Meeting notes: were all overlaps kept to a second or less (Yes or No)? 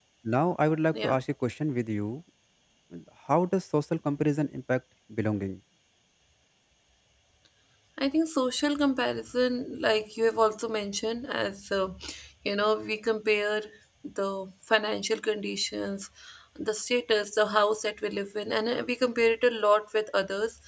Yes